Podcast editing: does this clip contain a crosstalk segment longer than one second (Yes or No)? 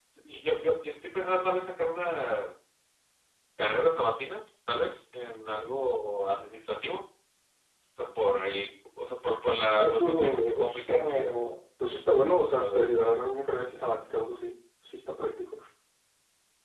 Yes